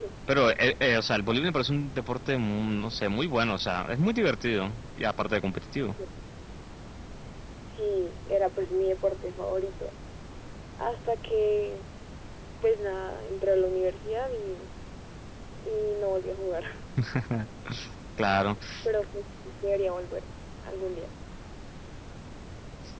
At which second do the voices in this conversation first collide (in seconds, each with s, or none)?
none